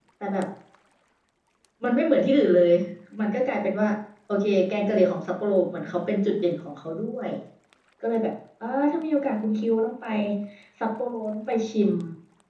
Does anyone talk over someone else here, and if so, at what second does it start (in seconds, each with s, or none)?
none